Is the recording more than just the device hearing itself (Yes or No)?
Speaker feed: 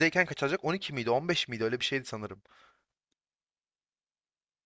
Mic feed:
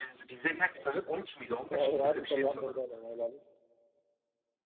Yes